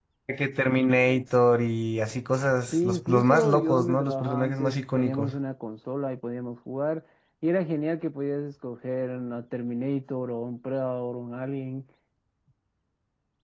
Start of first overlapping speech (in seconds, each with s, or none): 2.7 s